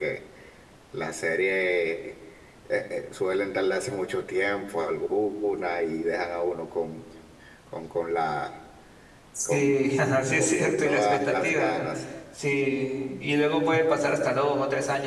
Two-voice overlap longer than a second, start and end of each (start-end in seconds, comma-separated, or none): 10.4-11.8